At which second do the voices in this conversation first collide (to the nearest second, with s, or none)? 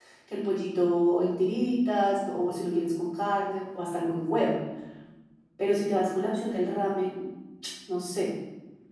none